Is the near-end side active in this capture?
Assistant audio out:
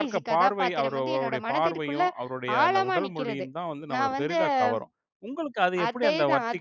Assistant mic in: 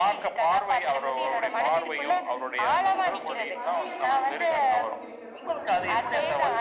Yes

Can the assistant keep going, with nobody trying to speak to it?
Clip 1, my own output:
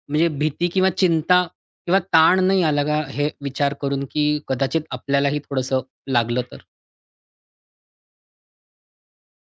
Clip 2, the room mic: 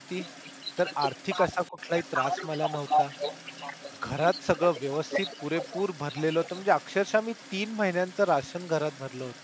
No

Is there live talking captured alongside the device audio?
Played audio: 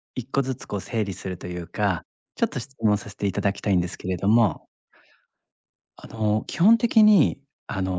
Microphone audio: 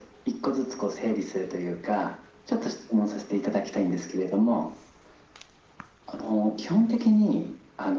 No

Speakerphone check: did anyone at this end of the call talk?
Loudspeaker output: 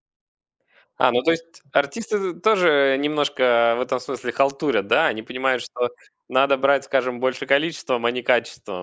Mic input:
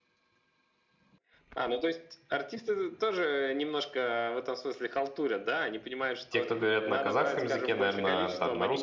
Yes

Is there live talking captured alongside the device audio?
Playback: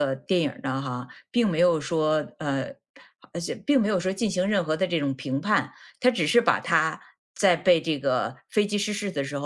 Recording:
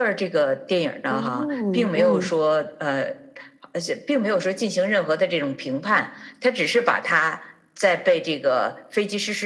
Yes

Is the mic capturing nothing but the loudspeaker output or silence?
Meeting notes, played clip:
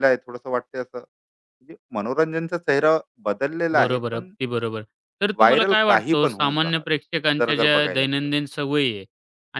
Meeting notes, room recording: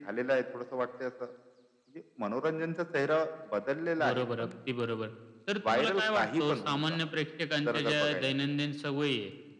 Yes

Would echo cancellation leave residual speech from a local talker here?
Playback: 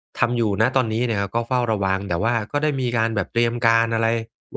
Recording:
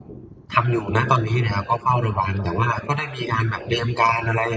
No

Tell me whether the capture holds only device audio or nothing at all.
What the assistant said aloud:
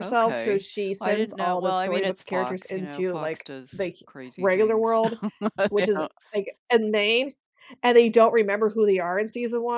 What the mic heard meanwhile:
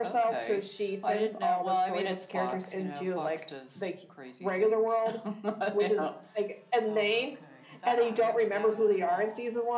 No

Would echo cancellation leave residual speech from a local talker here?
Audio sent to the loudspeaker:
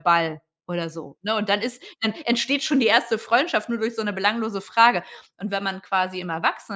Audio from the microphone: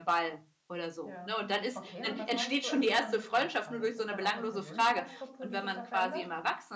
Yes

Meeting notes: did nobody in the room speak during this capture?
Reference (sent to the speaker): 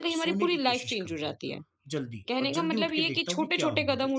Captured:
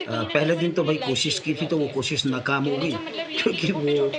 No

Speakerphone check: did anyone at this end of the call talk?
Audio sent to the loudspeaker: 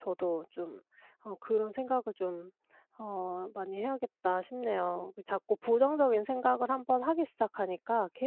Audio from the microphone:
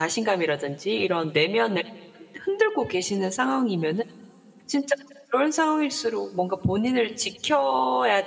Yes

